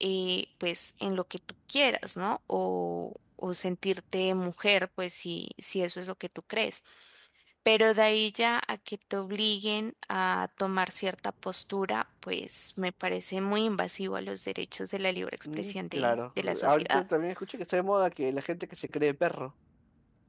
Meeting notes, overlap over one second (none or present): present